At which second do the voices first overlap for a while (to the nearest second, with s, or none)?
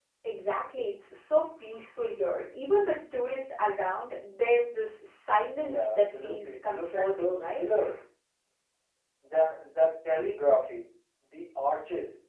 6 s